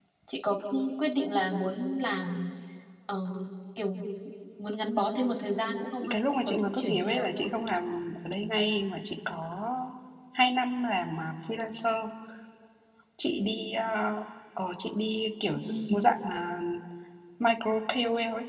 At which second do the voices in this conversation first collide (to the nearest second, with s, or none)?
6 s